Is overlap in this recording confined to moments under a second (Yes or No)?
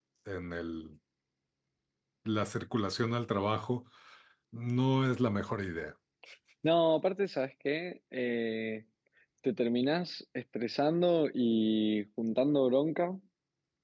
Yes